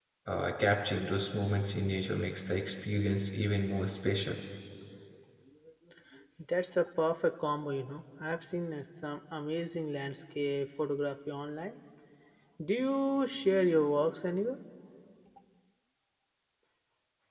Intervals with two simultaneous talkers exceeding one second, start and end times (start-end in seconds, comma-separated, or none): none